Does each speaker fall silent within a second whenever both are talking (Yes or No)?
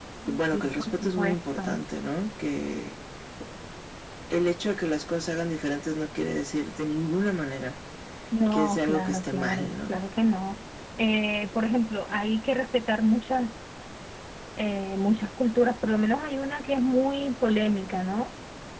No